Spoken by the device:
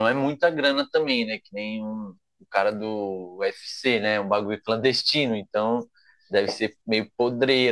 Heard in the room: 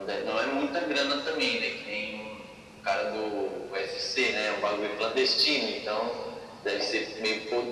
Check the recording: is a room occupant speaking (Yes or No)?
No